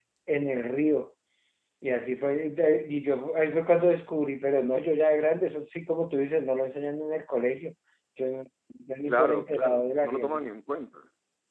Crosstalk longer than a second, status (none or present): present